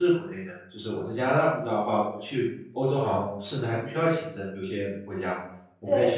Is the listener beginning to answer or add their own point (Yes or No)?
No